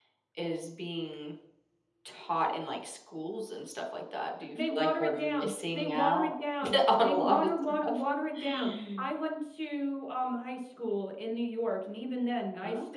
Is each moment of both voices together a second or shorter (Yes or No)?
No